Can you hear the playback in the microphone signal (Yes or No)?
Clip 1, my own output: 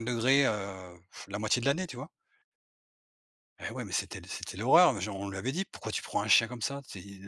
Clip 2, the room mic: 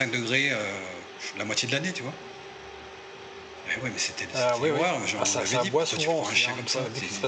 Yes